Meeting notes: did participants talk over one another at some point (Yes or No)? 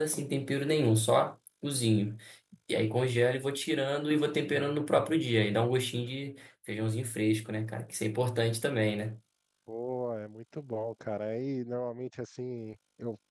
No